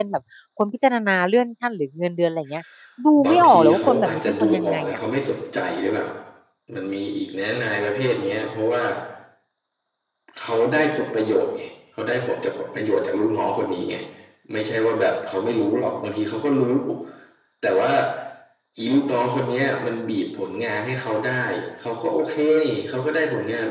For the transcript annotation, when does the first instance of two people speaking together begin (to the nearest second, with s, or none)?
3 s